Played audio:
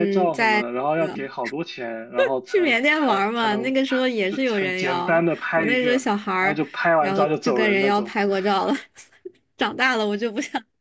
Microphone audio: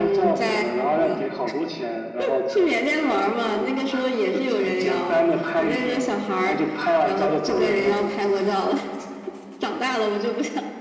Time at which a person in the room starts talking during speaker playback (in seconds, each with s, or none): none